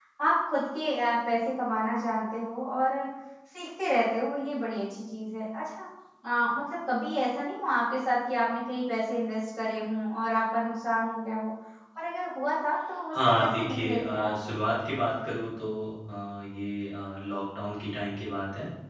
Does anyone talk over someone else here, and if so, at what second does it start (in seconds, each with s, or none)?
13.1 s